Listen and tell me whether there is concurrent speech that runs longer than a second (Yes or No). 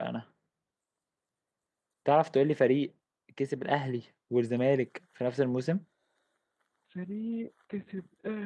No